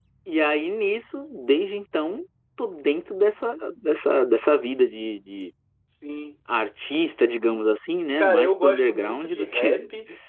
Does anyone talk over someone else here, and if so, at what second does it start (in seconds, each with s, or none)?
8.2 s